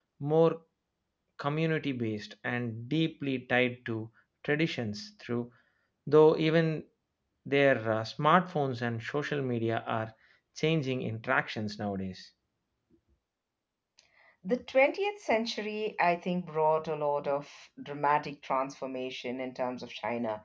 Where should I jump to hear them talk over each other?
none

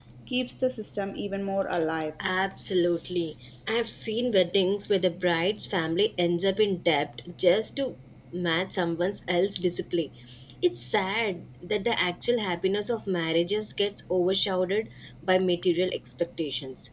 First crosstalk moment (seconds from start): none

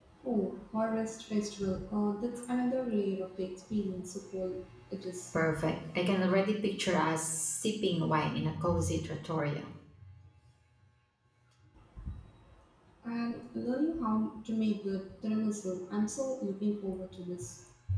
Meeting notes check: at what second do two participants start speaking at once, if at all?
none

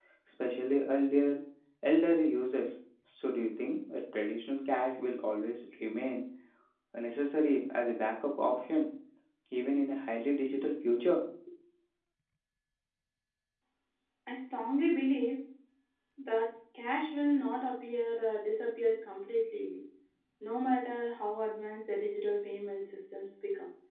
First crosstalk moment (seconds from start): none

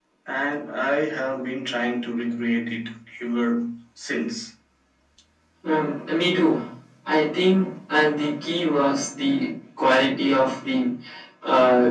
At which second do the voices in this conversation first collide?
none

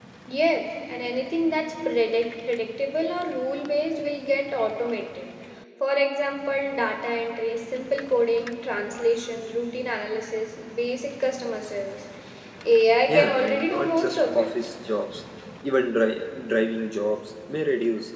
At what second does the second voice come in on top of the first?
13.1 s

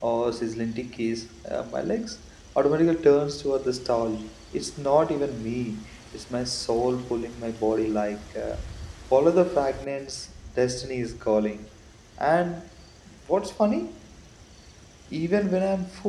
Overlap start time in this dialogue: none

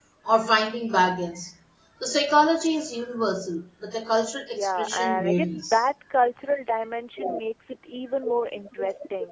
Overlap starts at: 4.5 s

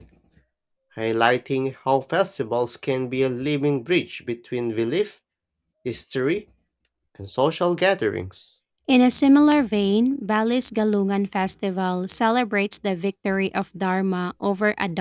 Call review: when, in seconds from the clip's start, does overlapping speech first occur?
none

